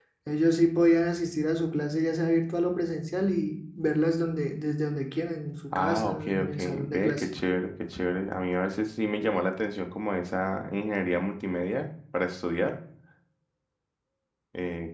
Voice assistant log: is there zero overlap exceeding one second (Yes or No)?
No